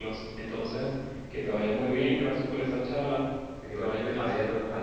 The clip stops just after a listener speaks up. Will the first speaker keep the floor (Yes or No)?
No